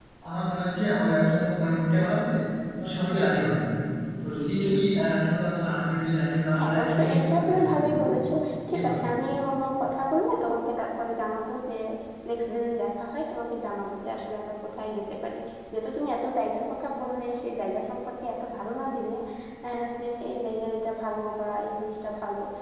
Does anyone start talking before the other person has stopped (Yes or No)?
Yes